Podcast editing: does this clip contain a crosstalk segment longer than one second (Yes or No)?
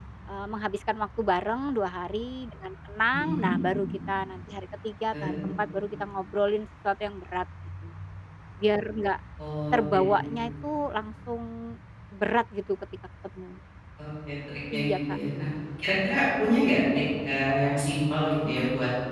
No